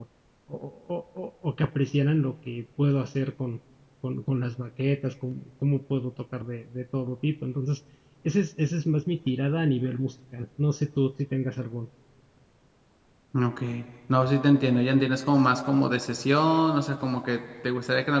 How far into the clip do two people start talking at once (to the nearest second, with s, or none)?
none